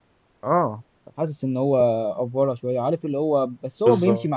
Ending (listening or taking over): listening